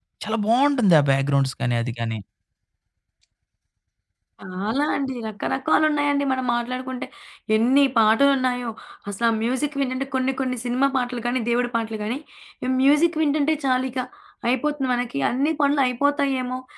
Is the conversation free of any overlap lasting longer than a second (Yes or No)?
Yes